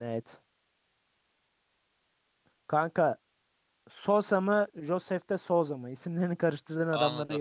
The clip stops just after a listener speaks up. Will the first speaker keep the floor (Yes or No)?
No